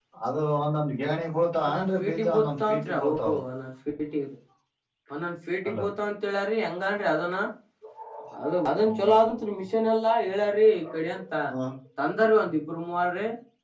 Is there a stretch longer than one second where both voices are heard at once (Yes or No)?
Yes